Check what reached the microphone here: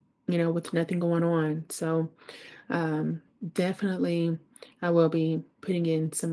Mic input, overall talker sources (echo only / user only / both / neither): user only